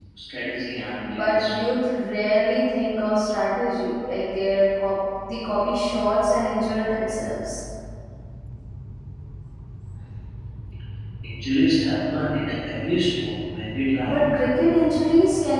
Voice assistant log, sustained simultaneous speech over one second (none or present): none